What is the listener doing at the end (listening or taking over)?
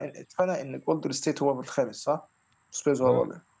taking over